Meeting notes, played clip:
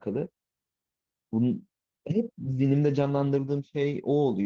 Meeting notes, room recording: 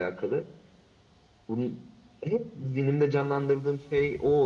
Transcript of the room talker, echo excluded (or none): none